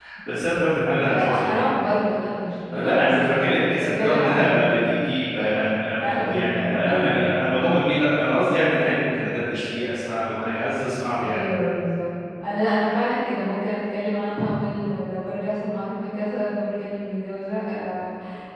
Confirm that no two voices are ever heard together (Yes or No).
No